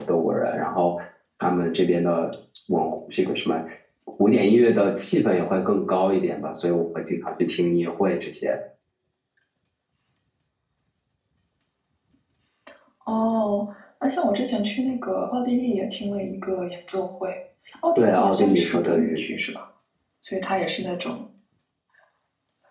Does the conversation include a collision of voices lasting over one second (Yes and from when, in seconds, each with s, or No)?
Yes, from 18.0 s